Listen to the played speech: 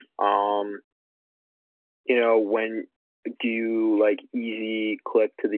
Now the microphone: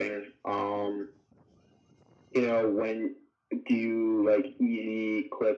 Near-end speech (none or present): none